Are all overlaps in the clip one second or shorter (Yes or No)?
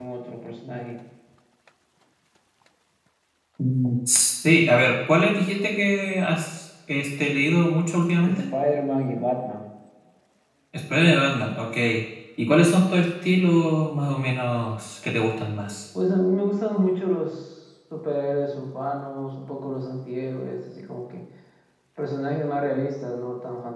Yes